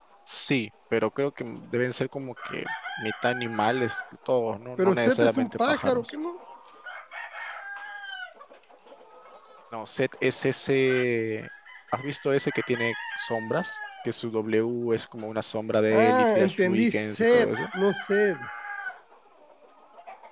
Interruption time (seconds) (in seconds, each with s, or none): 4.8 s